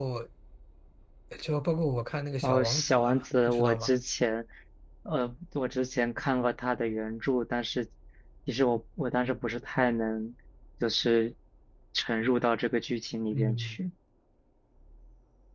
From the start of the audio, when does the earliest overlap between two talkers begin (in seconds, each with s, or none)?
2.4 s